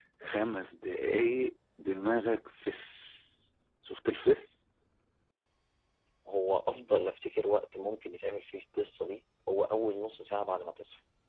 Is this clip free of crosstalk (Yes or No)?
Yes